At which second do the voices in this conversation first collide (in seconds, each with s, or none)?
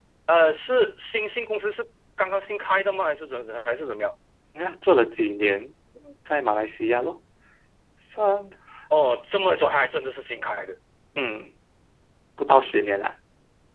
none